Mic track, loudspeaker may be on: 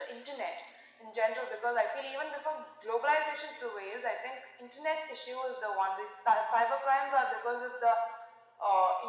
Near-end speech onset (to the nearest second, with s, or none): none